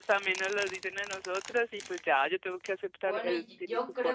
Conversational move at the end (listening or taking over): taking over